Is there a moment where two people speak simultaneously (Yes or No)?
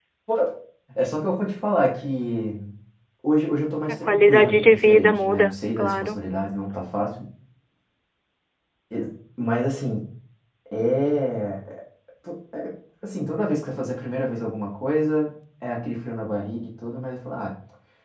Yes